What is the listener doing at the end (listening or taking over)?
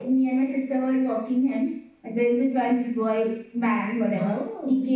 listening